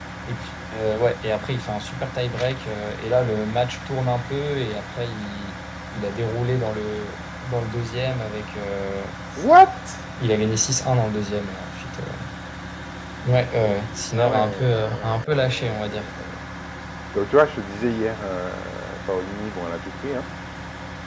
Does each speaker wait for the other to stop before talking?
No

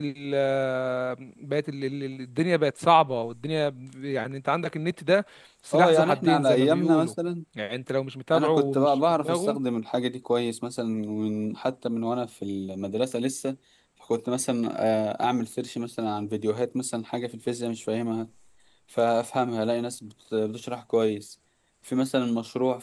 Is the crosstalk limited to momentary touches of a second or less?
No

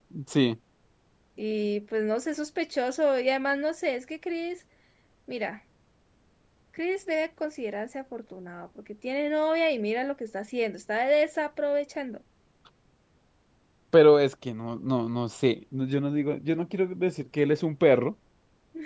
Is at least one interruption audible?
No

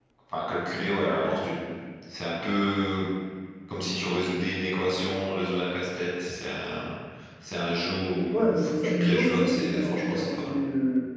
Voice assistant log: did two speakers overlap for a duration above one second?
Yes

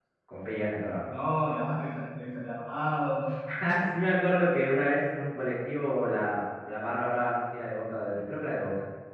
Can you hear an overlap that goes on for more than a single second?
No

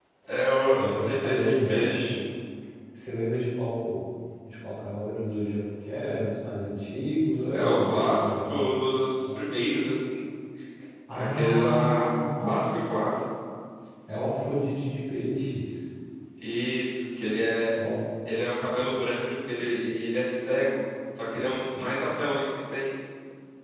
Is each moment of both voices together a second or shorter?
No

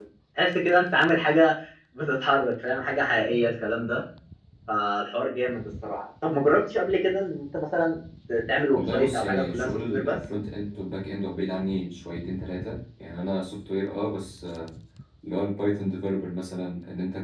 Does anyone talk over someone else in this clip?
Yes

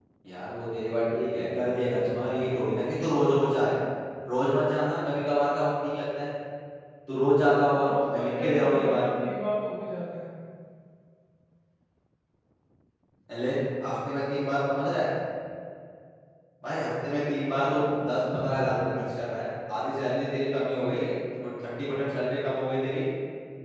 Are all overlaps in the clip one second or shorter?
No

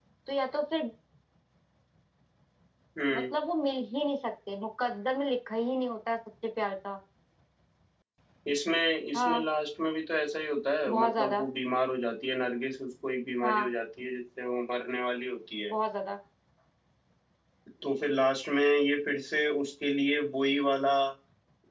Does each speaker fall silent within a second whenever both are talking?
Yes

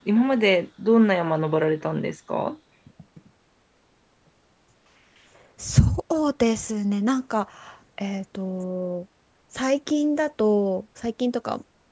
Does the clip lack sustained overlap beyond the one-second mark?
Yes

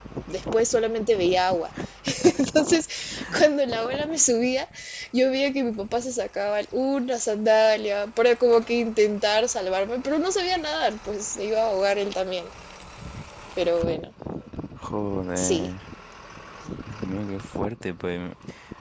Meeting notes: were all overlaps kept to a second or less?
Yes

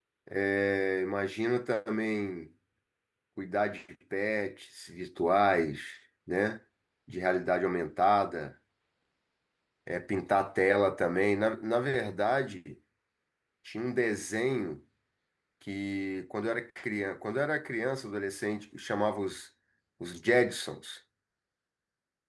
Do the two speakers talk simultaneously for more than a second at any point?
No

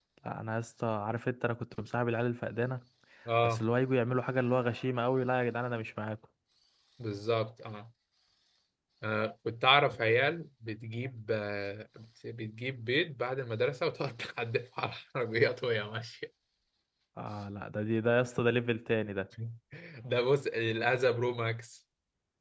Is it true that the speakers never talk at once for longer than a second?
Yes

